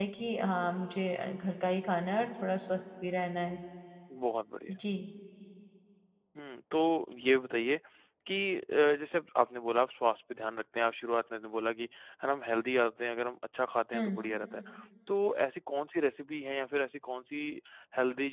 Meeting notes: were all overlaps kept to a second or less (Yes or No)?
Yes